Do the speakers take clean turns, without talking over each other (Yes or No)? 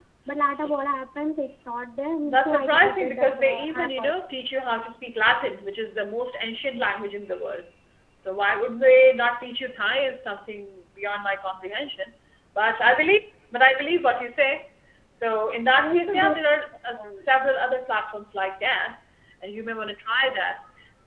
No